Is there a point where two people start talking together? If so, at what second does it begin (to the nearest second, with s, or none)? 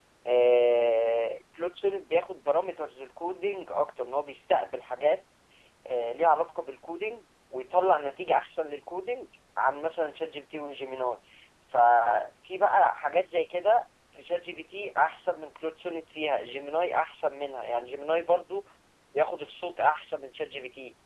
none